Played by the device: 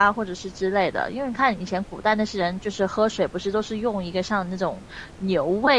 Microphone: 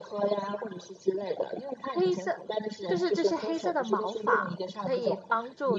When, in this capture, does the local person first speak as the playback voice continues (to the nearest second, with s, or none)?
2 s